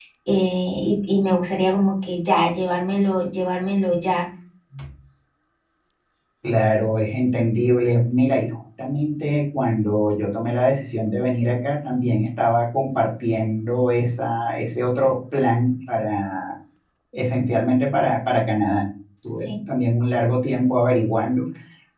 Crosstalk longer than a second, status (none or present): none